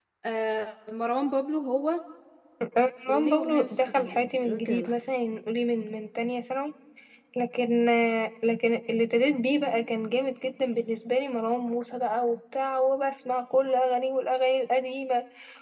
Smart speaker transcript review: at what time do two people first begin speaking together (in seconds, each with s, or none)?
3.1 s